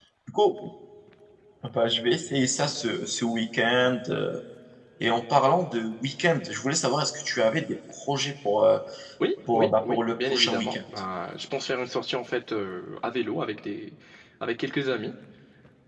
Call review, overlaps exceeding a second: present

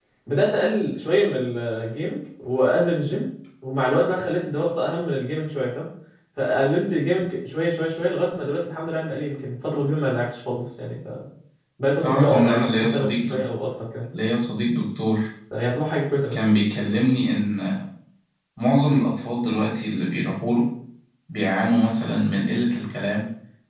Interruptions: present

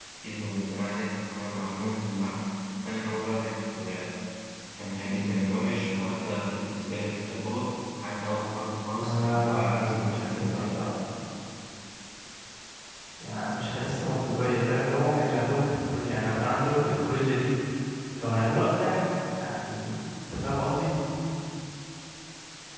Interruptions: present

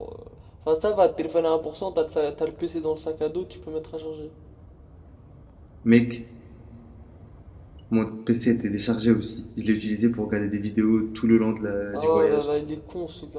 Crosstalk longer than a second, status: none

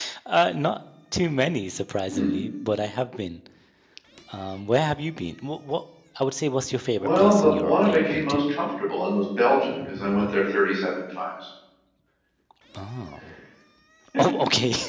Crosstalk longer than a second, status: present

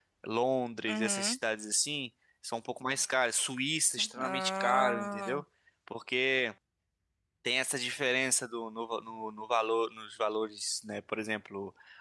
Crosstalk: present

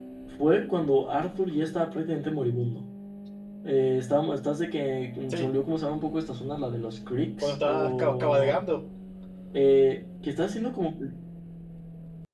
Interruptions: present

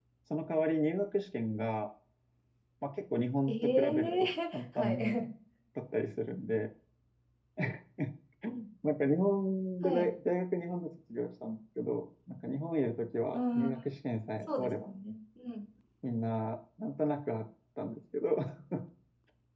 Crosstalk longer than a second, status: present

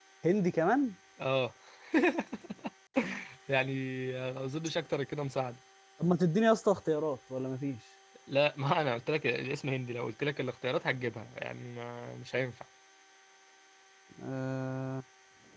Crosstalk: none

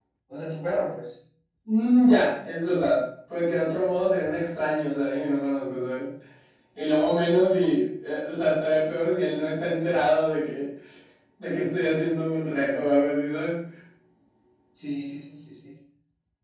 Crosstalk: none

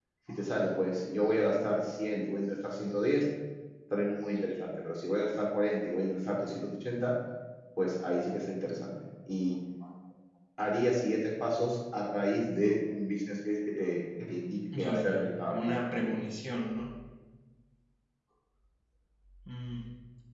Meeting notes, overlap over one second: present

